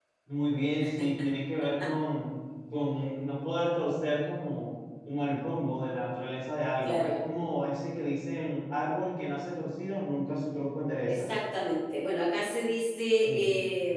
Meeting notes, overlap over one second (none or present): none